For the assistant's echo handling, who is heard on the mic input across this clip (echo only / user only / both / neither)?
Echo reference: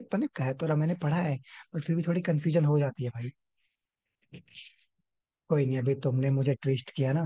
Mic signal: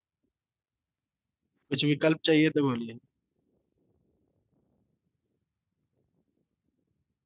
user only